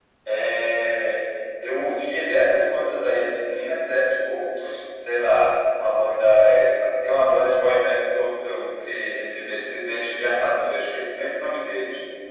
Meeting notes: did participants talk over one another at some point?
No

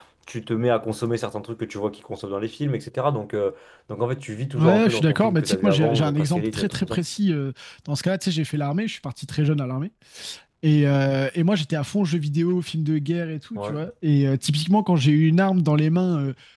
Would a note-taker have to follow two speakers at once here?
Yes, from 4.6 s

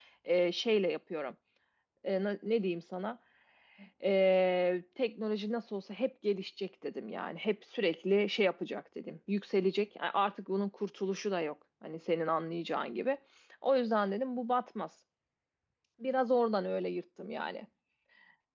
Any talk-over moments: No

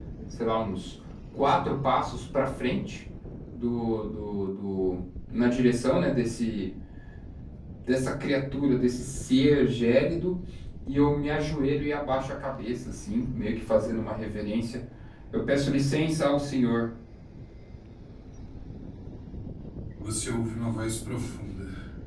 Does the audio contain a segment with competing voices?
No

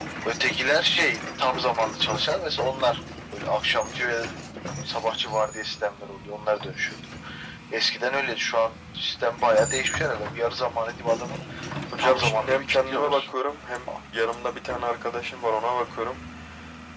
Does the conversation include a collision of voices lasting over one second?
Yes, from 12.0 s

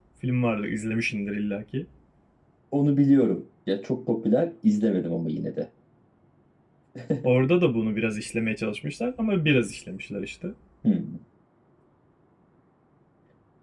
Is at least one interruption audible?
No

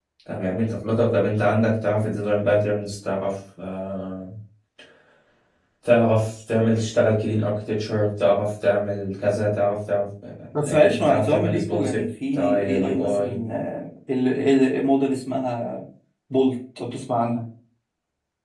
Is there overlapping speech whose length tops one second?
Yes, from 10.5 s

